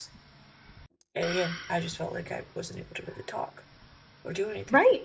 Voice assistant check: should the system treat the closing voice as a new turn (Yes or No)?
Yes